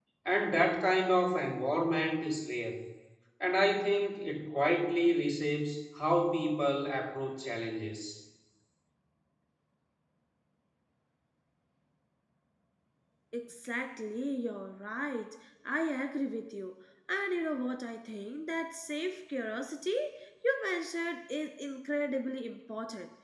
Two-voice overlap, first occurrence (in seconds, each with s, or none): none